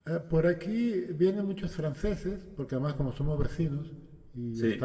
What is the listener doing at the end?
listening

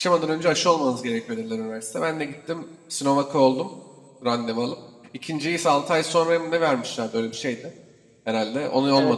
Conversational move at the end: taking over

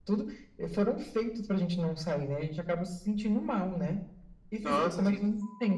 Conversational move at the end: listening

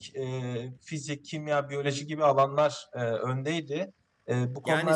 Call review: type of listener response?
taking over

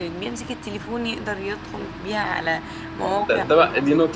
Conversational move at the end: taking over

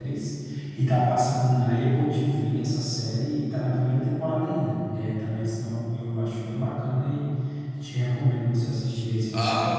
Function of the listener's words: taking over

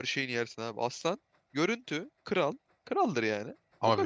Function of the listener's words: taking over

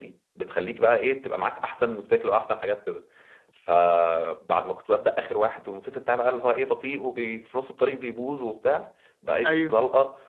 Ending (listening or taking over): listening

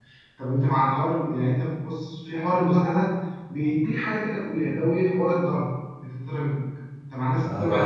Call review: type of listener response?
taking over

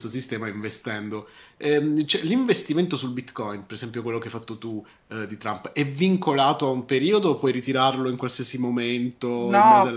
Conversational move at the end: taking over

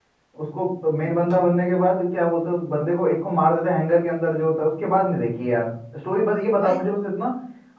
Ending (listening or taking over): listening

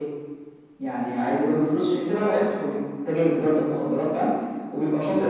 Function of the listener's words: listening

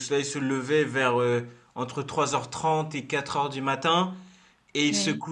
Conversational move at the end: listening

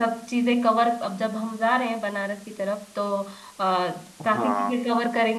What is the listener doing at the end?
listening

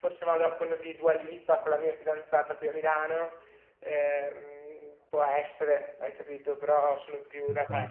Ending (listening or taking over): listening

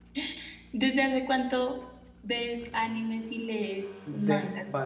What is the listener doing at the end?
taking over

